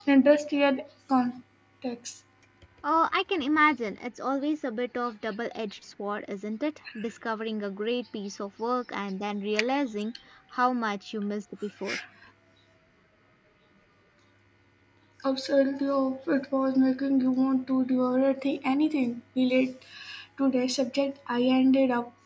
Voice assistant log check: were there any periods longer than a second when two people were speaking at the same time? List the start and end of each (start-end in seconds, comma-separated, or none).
none